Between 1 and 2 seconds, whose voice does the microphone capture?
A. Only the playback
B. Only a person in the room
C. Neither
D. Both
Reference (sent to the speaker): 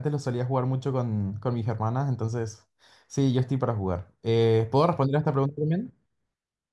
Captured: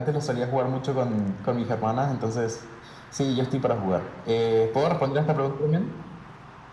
A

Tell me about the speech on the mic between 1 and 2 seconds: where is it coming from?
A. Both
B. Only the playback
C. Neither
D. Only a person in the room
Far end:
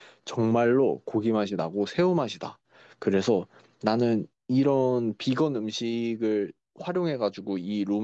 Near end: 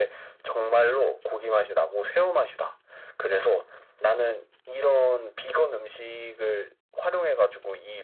B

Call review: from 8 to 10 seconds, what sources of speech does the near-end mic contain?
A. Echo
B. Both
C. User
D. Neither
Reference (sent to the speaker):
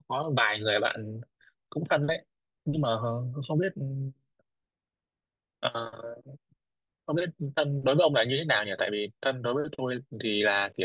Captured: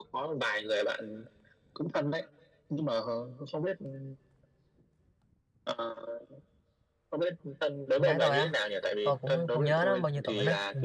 B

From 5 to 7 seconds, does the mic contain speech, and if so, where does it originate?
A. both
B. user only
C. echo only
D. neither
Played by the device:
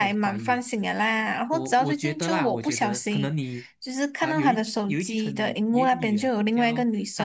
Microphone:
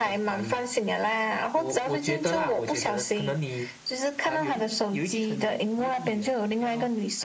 C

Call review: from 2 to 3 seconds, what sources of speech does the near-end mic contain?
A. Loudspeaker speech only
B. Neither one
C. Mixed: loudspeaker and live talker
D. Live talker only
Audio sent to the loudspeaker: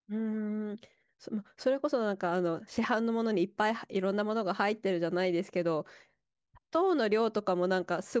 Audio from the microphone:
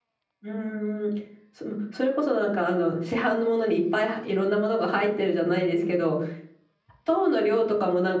A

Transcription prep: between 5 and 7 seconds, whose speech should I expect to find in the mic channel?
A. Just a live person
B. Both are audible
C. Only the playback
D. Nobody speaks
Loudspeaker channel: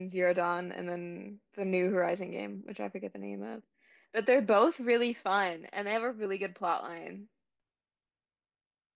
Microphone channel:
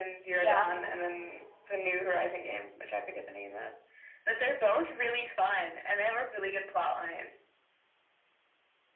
C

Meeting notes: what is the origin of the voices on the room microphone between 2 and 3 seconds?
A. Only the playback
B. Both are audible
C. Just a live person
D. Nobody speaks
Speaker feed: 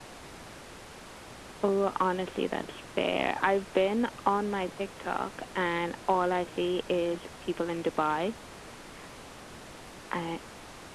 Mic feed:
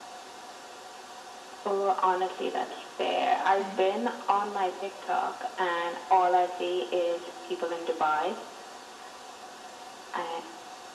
A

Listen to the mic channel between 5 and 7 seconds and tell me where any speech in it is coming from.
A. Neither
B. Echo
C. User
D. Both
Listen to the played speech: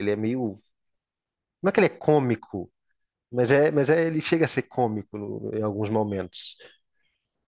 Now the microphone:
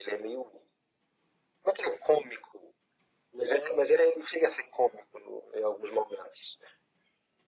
B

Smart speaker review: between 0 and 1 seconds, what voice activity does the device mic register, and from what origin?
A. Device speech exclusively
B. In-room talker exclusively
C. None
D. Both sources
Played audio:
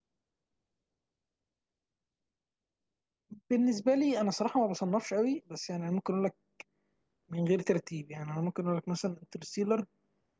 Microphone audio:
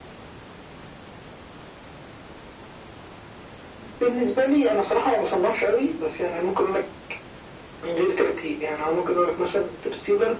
C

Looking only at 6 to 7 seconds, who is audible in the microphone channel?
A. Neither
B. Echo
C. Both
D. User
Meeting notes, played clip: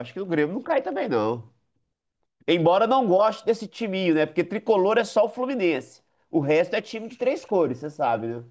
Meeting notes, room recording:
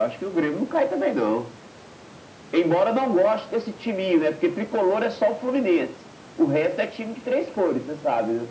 B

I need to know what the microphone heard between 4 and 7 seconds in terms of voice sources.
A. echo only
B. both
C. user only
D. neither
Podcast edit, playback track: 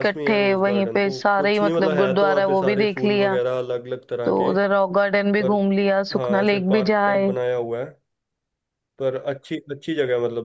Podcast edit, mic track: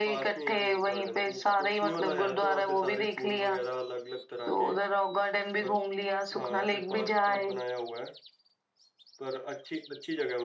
A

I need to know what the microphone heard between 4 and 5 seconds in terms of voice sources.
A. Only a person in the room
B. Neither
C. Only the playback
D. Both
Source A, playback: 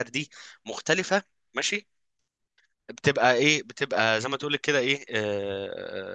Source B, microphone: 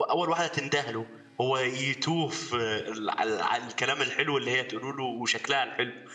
A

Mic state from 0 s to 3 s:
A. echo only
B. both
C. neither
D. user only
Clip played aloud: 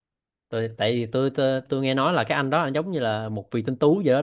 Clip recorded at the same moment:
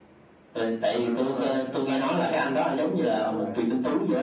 B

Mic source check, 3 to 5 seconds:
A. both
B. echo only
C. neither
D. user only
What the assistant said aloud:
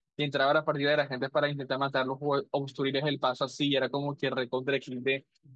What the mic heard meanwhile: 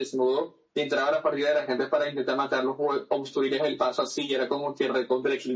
B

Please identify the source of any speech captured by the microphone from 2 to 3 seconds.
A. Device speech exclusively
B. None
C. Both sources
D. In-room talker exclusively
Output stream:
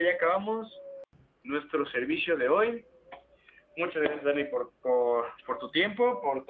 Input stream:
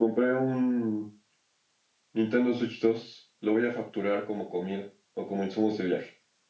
D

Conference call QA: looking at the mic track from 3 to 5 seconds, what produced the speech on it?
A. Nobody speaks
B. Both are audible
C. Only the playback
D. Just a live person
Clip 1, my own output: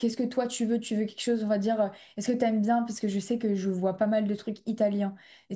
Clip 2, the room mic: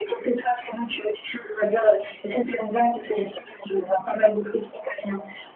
C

